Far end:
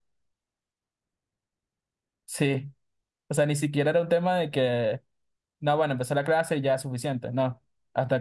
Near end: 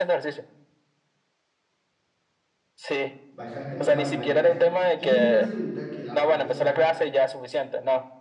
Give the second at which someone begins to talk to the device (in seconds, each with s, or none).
3.4 s